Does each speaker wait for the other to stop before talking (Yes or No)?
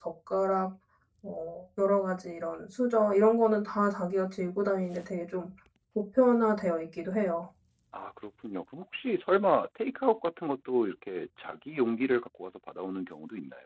Yes